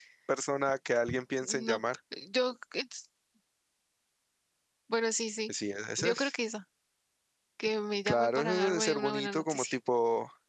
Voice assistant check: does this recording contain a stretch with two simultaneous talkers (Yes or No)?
Yes